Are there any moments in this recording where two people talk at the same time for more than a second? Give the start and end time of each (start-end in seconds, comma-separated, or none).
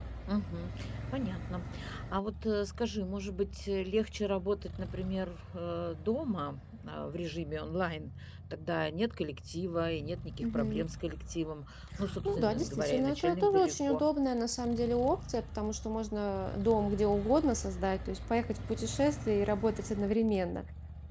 12.2-14.0